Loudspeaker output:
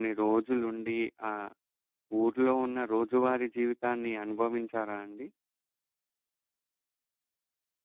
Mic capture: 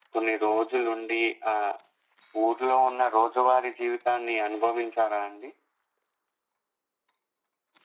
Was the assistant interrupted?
No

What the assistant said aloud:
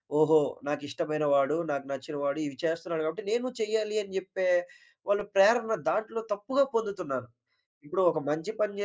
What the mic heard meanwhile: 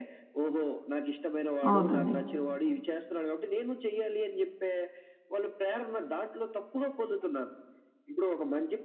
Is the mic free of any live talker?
No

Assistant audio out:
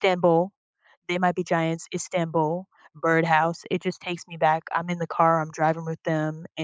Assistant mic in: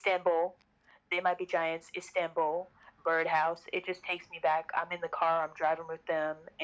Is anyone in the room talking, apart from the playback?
No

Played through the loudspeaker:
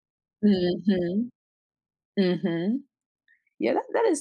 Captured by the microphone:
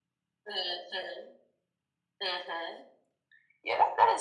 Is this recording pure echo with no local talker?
Yes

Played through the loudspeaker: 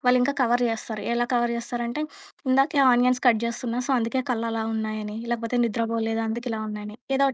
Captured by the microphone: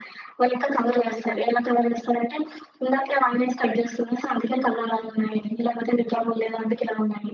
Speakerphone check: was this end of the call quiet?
No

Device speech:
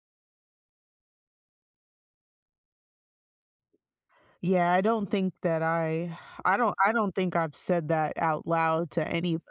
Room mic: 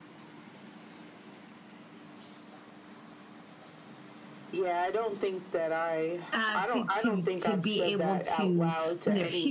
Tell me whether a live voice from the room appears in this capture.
Yes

